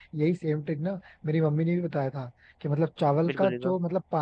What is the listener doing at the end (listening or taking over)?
listening